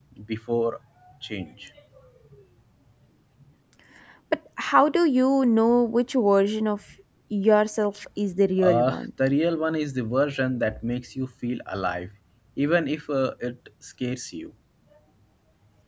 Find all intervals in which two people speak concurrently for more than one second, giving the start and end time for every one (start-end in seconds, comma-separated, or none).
none